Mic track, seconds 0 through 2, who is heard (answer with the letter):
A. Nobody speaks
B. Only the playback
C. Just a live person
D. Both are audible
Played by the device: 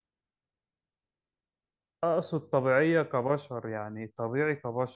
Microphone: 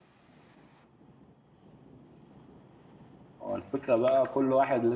A